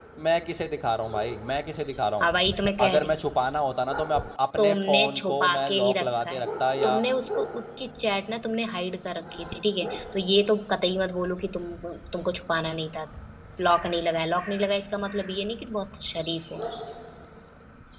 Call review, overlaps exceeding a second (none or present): present